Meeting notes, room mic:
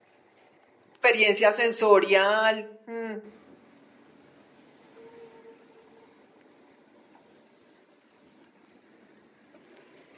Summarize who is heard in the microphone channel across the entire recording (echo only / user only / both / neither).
user only